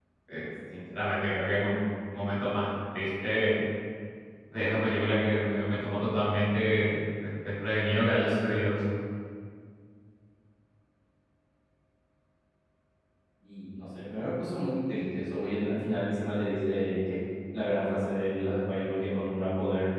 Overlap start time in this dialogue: none

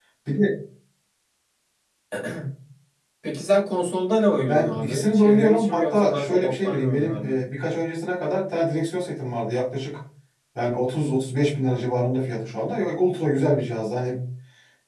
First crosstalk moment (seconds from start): 4.5 s

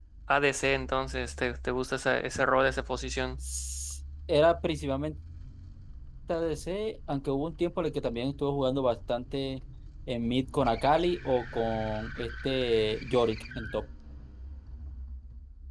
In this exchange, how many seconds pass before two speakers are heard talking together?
none

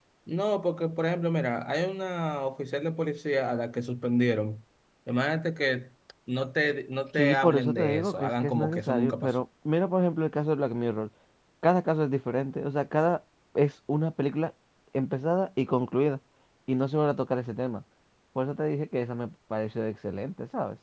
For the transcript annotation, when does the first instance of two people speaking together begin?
7.2 s

